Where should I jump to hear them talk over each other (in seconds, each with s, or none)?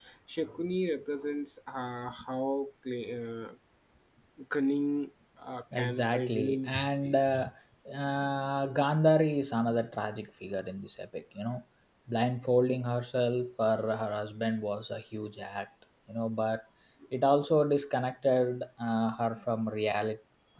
5.7 s